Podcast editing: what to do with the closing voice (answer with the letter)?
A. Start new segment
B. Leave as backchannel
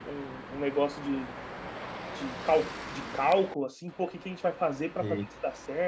B